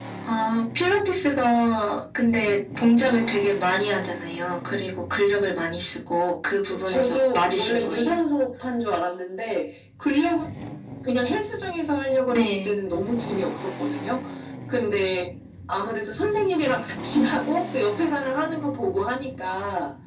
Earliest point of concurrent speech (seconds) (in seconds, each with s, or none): 6.9 s